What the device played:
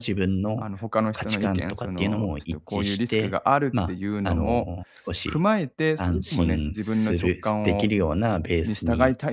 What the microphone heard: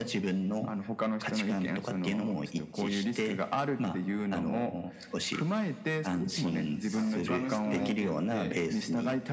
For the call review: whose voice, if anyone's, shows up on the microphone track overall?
both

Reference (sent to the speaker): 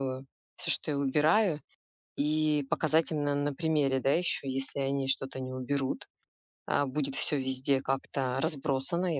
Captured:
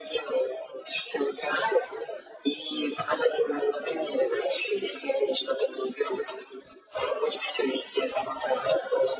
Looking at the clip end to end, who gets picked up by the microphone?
echo only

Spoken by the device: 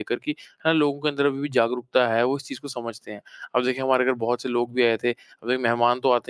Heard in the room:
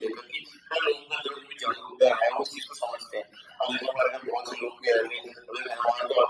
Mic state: echo only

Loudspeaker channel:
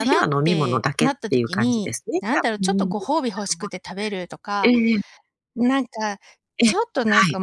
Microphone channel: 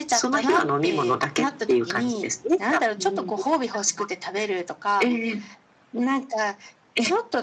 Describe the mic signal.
echo only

